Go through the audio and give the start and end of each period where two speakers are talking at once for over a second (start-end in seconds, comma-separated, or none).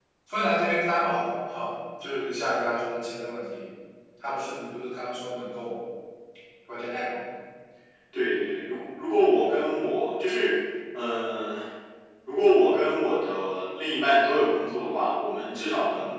none